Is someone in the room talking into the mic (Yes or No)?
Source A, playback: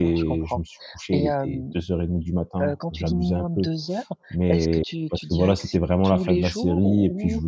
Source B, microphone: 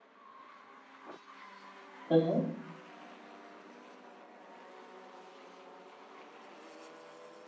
Yes